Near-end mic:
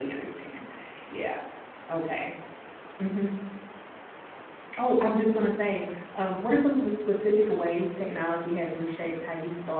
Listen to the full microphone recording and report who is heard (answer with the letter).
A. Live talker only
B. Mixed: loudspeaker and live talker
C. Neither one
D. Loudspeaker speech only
A